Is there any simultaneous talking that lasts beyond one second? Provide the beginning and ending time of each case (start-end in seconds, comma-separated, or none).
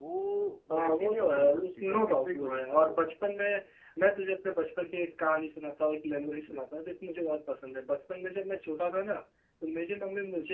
0.8-3.0